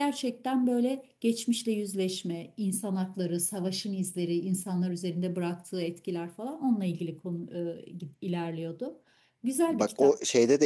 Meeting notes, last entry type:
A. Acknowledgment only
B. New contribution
B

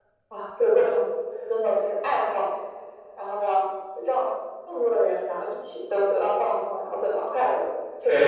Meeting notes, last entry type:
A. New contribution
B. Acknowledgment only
A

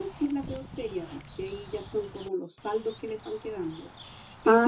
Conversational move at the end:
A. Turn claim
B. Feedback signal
B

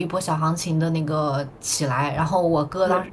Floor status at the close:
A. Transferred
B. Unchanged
B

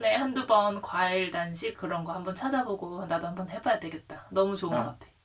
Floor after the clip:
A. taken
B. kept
A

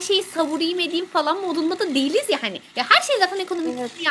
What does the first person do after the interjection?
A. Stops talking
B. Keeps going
B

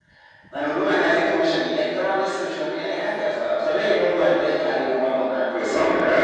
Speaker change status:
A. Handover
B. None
B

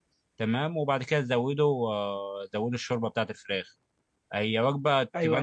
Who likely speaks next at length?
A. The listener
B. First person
B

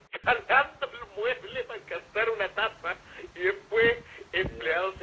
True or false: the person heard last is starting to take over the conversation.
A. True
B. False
B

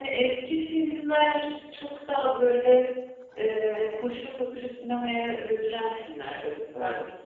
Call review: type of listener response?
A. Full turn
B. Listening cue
B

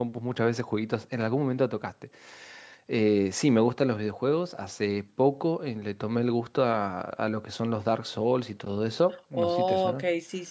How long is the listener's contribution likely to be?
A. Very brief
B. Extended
B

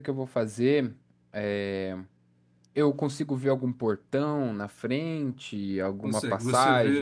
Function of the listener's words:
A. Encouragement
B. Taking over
B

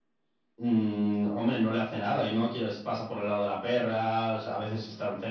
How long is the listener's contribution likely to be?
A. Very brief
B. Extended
B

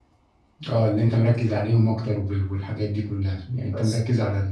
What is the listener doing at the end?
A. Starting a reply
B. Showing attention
B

